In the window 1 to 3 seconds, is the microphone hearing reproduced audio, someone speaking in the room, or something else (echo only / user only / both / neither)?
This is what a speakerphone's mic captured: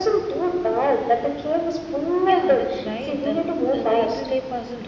both